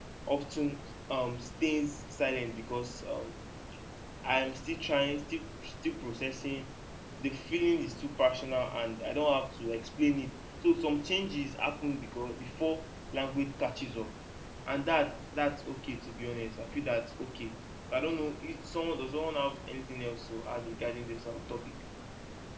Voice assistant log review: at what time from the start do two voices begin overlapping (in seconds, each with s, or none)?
none